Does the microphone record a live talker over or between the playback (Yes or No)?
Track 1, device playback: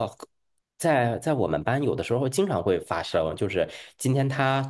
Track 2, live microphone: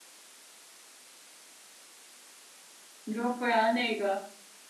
Yes